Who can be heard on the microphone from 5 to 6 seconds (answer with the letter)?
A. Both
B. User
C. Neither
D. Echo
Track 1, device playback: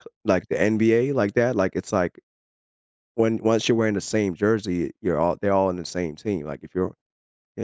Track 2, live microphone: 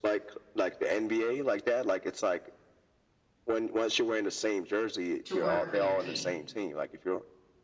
A